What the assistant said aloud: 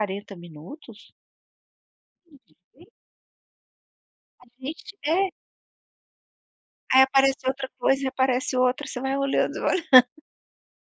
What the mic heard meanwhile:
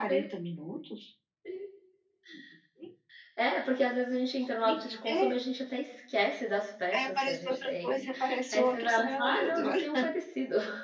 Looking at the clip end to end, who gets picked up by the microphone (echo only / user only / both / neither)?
both